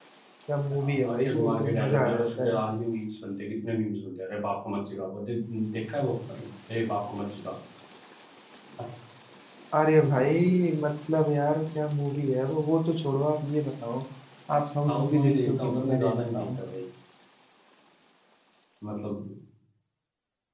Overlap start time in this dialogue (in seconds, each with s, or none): 0.7 s